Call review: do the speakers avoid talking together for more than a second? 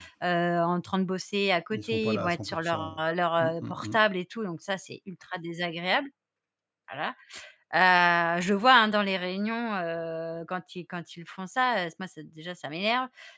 No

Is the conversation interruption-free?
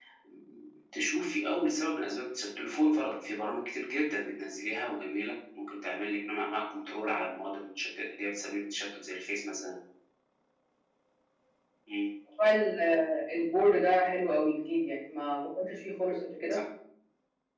Yes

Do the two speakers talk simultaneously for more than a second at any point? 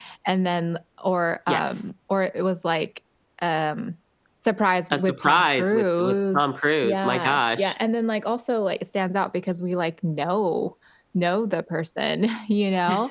Yes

